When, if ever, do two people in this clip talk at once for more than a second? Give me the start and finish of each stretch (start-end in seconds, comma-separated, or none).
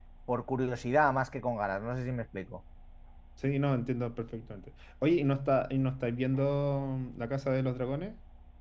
none